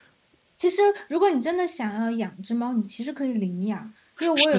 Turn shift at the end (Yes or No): No